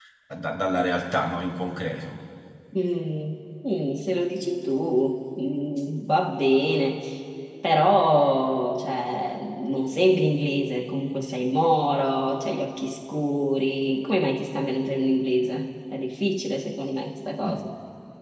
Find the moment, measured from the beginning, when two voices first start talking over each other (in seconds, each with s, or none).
none